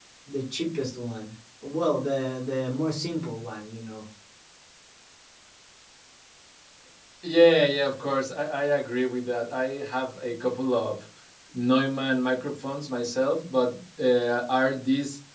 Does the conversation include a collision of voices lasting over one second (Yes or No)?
No